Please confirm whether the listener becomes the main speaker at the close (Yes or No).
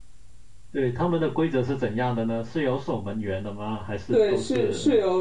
Yes